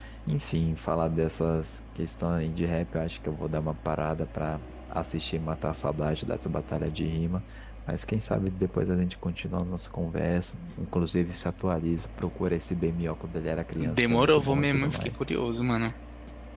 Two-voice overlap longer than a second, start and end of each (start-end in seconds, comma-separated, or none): 13.9-15.2